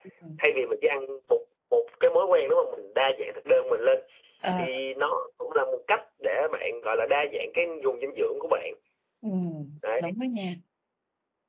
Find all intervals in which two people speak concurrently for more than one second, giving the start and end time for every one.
none

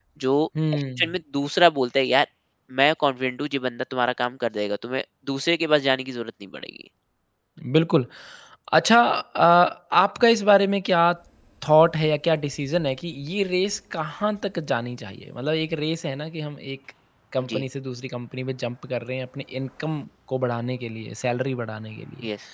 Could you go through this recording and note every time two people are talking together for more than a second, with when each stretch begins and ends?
none

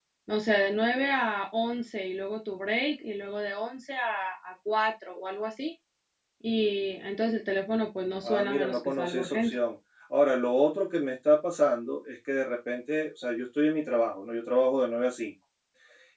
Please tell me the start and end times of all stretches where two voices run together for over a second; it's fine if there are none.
8.2-9.5

